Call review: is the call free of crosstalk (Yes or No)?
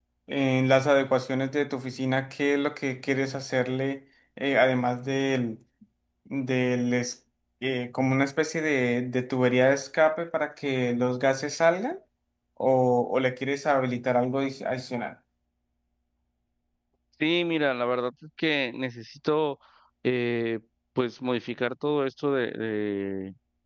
Yes